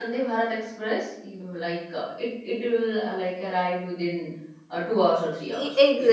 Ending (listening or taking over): taking over